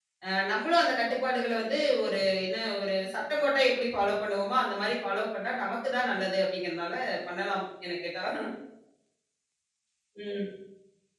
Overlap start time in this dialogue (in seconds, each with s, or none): none